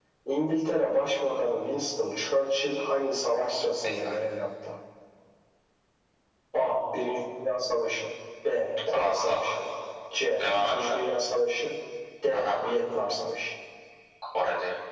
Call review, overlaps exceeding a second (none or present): none